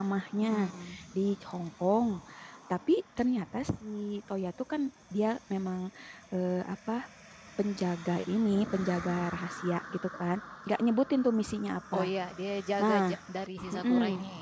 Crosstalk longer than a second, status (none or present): none